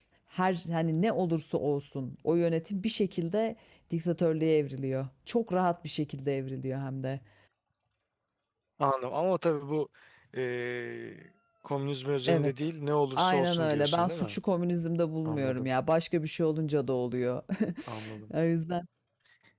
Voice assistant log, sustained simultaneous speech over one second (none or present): present